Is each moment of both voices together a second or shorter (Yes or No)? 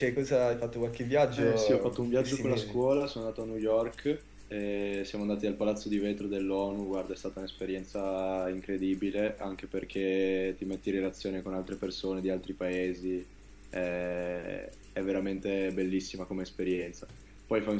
No